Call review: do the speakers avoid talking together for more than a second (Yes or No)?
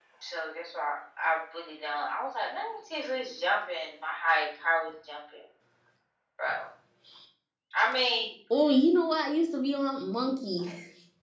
Yes